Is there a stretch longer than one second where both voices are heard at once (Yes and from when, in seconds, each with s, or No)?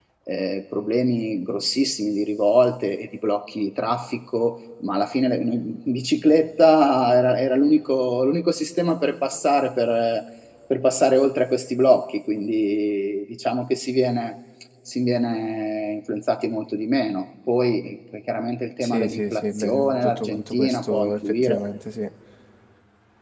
Yes, from 18.8 s